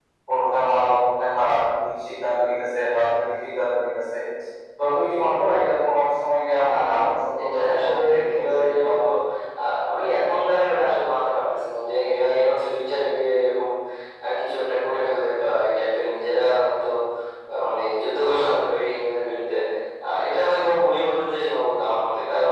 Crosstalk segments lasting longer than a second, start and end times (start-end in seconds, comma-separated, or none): 7.4-9.0